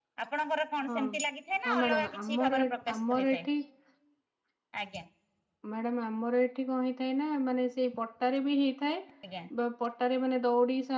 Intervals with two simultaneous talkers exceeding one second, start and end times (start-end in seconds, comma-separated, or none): 1.7-3.5